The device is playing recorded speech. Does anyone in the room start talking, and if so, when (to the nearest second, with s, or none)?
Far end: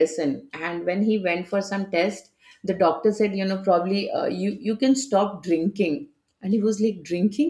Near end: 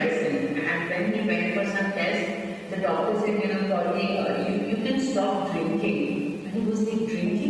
none